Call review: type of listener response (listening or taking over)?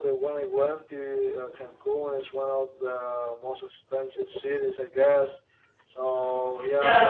listening